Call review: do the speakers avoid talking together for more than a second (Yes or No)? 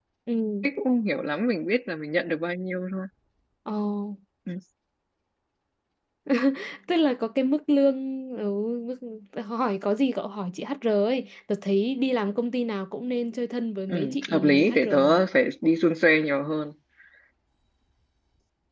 No